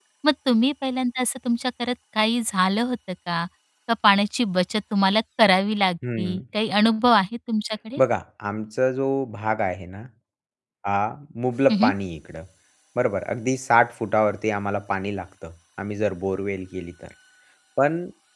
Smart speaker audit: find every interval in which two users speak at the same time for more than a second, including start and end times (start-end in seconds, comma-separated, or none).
none